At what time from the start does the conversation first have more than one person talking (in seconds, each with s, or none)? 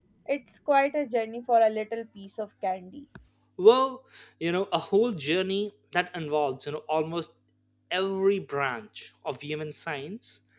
none